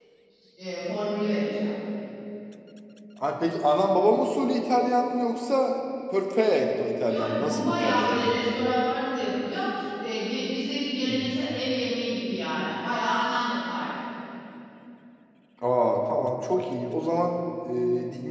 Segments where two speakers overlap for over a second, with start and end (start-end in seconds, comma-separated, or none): 7.1-8.4